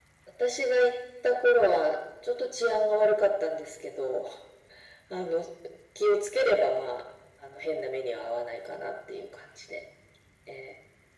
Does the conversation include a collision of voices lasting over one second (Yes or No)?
No